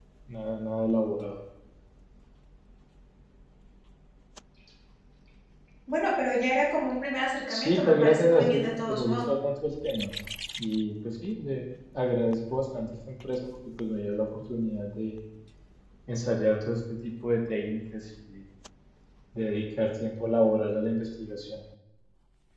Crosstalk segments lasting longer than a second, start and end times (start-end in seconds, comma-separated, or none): 7.5-9.2